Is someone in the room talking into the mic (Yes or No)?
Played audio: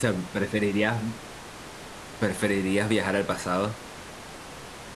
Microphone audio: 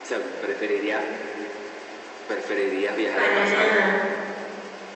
Yes